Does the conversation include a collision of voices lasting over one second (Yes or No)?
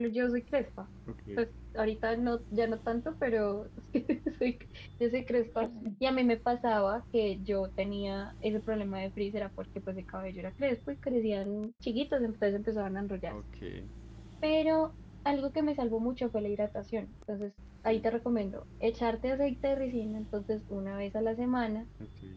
No